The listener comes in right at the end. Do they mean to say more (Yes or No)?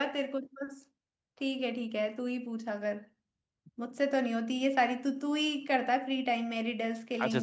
Yes